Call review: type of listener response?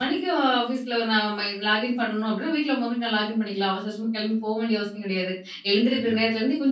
listening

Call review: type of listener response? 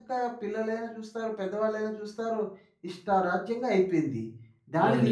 taking over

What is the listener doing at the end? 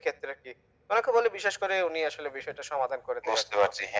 taking over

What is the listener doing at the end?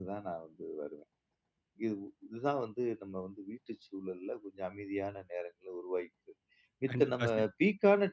listening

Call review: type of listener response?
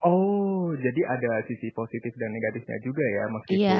listening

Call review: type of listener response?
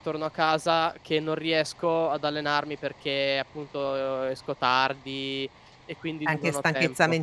taking over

